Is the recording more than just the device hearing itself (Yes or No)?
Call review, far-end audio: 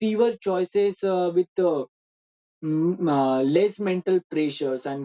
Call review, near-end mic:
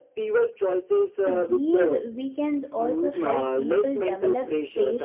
Yes